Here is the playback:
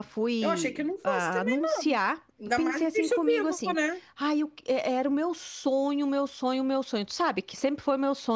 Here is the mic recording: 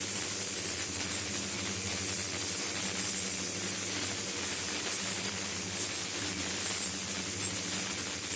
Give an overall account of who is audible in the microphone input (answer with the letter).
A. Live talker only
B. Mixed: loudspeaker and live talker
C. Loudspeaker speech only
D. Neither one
D